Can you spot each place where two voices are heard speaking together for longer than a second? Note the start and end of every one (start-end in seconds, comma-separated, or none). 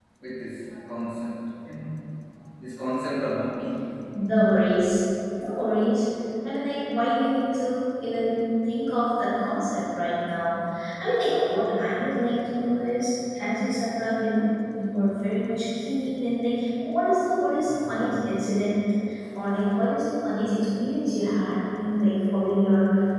none